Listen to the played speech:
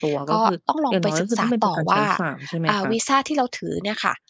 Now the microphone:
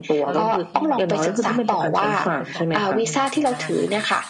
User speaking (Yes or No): Yes